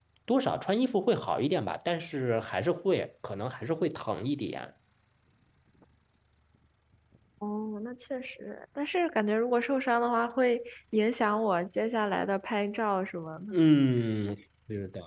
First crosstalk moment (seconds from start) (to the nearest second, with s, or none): none